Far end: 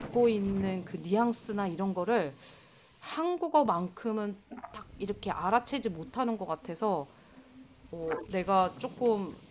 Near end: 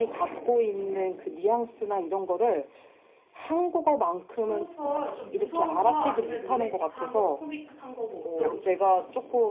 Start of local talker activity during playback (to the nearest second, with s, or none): 4 s